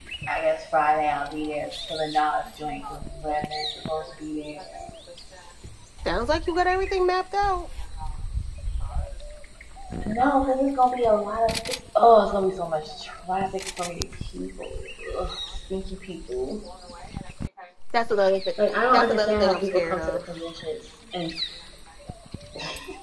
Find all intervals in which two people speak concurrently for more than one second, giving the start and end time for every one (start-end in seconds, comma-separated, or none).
18.9-20.2